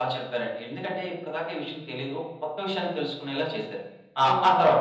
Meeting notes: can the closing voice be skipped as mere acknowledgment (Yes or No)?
No